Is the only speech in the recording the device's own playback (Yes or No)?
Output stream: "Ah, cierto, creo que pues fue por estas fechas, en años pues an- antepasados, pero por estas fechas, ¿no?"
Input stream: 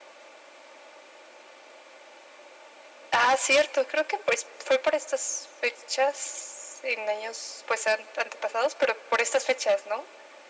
Yes